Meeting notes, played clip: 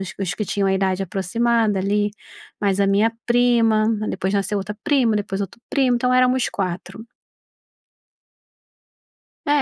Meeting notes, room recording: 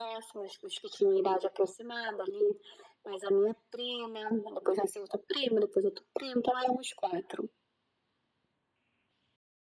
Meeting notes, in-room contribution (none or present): none